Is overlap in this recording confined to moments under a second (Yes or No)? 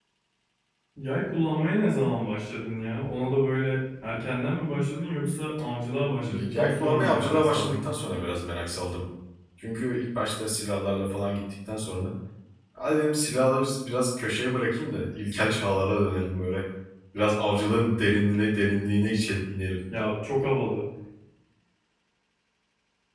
No